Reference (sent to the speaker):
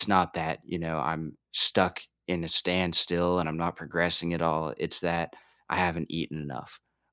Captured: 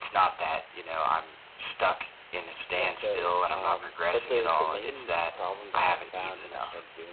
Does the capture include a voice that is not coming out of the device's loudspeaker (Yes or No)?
Yes